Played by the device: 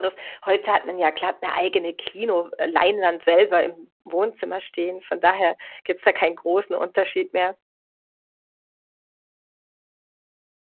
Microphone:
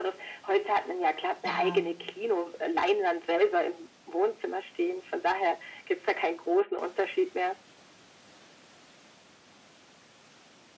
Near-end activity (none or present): present